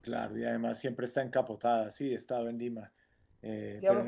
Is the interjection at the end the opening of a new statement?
Yes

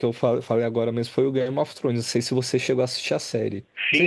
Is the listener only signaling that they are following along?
No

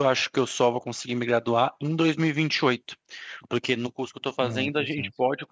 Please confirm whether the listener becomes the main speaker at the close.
No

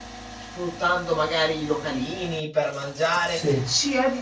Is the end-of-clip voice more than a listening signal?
No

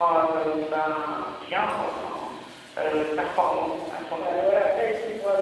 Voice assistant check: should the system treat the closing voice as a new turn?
Yes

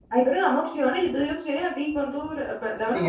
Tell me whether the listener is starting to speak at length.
Yes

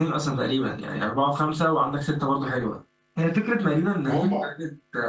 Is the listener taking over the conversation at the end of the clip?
No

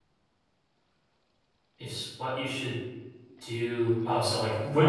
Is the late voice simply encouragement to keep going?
No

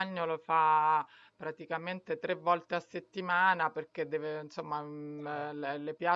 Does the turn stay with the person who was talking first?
Yes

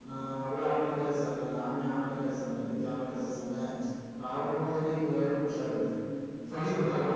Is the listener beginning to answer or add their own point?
No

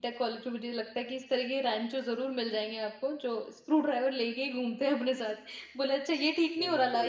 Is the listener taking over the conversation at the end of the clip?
No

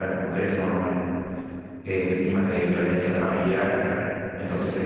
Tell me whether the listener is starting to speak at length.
No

